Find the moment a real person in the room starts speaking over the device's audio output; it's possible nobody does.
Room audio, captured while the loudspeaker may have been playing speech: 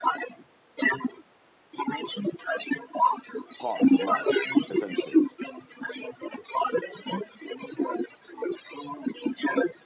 4 s

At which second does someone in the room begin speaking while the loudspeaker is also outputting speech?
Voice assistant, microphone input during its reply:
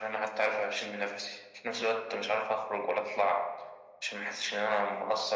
none

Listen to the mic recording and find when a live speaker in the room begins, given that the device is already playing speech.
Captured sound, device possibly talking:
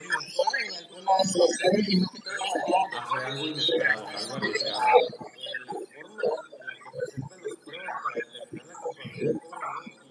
3 s

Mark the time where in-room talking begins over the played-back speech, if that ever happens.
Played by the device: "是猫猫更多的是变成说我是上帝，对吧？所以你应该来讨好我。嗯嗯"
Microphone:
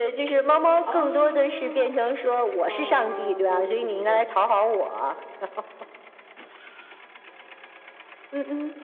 1 s

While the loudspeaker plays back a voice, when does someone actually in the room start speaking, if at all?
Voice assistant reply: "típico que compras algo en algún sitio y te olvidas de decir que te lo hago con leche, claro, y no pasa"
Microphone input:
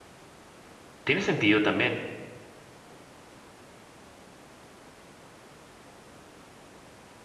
1 s

